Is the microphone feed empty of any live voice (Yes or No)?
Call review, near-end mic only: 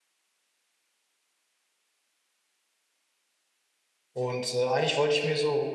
No